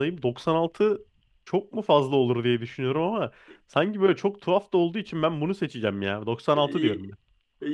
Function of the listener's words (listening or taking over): taking over